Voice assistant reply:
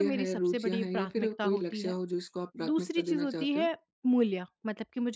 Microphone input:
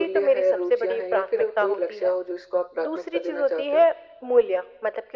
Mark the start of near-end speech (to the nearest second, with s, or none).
none